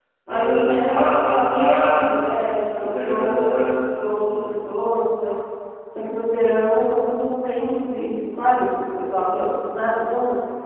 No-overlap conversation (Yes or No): No